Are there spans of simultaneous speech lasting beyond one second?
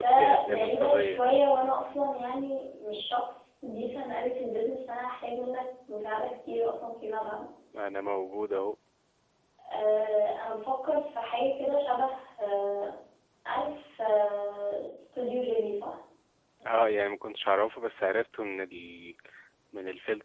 Yes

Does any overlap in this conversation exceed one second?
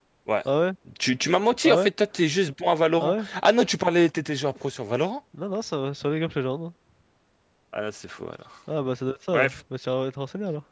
No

